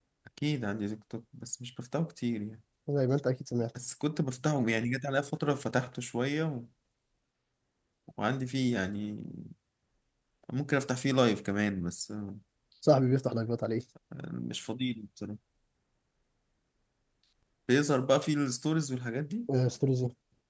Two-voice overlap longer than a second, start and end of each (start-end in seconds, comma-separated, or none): none